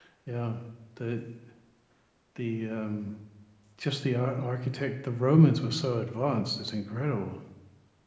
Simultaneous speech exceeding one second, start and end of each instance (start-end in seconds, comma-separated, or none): none